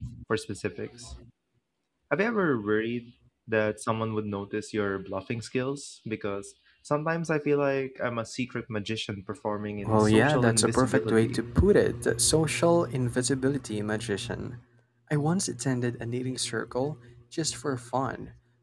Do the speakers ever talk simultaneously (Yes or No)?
Yes